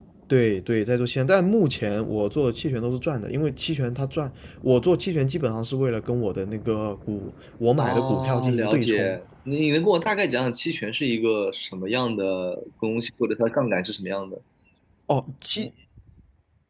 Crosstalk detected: Yes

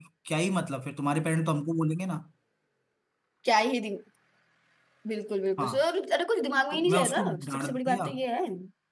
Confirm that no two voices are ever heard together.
No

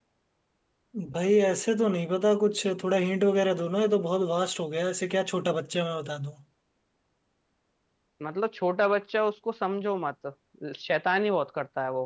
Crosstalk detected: No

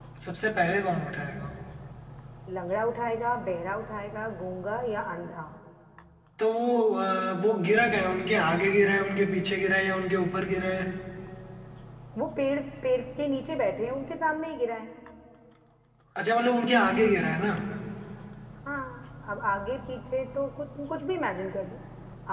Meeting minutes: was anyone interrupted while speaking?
No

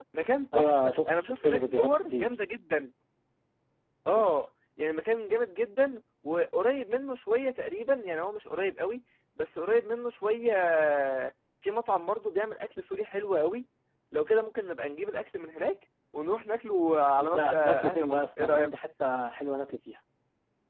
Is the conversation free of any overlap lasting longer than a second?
No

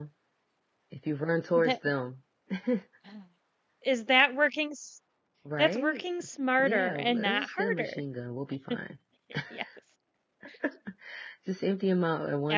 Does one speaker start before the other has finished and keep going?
Yes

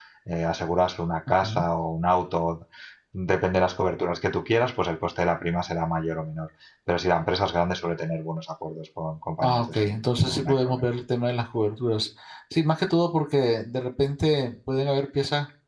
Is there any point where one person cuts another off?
Yes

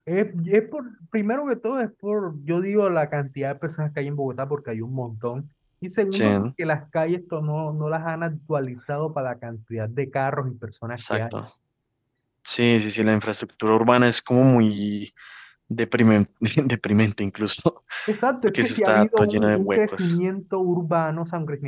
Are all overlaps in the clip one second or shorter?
No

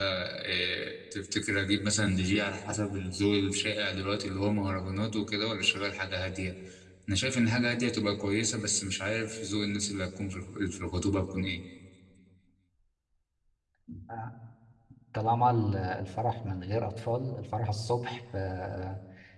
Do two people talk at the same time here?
No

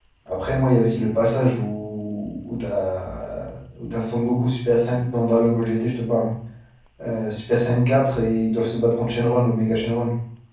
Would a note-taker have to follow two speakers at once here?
No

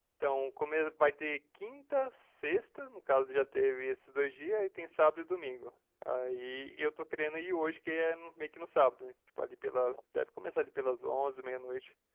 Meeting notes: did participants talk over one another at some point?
No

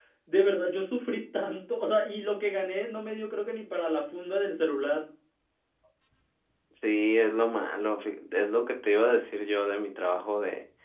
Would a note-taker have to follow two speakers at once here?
No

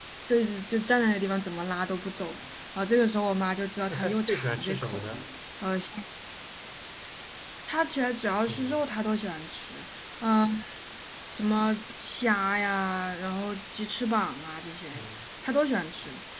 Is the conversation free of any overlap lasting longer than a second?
No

